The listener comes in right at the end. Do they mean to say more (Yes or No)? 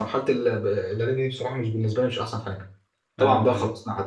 No